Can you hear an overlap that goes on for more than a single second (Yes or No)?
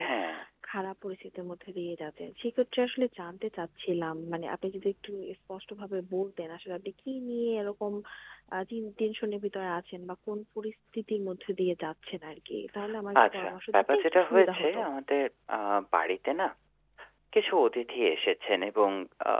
Yes